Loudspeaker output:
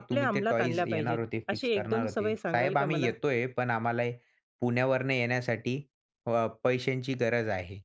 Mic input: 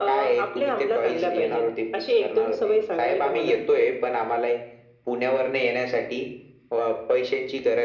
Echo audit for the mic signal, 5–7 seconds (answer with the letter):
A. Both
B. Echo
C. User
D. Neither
B